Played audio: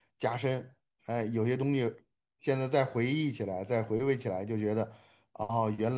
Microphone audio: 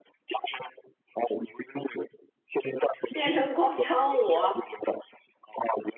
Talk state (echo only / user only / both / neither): both